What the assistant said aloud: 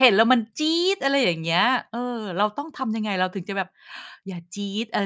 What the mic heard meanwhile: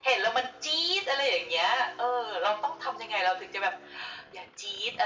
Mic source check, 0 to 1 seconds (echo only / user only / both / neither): echo only